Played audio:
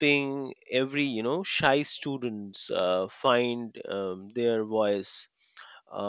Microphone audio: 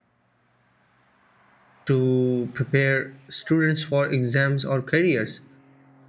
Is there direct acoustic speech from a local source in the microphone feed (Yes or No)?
Yes